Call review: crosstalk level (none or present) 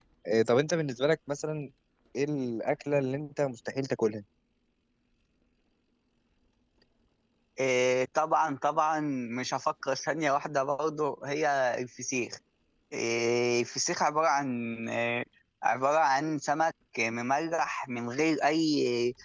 none